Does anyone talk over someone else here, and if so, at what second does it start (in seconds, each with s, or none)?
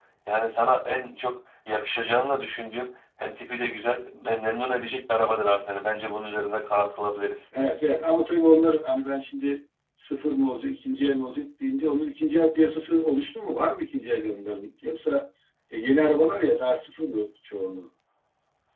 none